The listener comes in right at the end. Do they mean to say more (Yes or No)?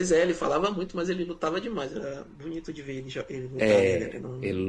Yes